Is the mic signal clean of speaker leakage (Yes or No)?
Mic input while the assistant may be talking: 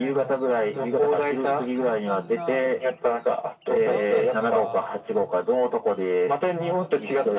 No